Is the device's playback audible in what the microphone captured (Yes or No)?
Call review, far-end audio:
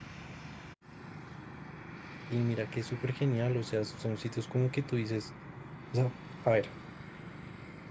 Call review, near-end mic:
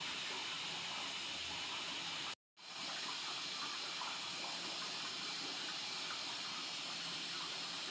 No